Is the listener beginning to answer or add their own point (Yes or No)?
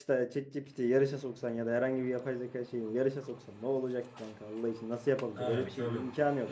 Yes